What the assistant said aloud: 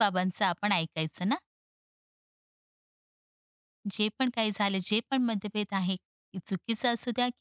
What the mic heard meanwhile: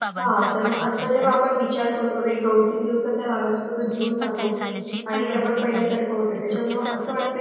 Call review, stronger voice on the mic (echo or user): user